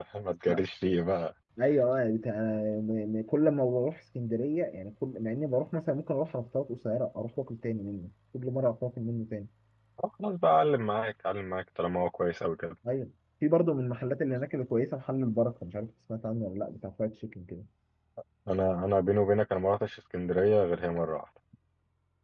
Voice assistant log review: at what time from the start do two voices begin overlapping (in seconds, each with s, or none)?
none